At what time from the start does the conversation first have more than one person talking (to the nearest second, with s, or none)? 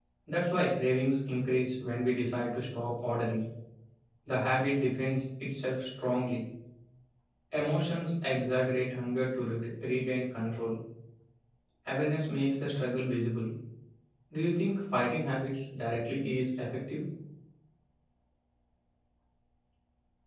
none